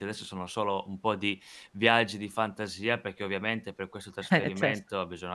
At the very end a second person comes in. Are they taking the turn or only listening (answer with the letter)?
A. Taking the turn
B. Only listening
B